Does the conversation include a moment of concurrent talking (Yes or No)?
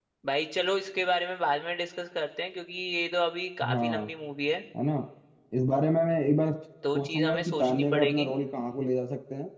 Yes